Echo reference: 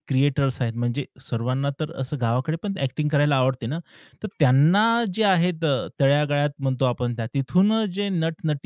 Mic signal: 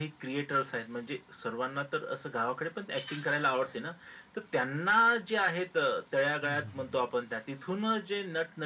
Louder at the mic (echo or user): echo